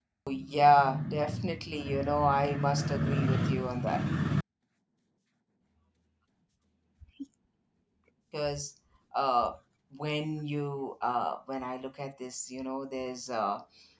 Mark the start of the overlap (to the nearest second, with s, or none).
none